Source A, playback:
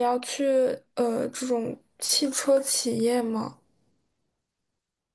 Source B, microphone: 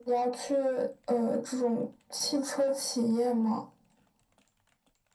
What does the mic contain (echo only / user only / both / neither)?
echo only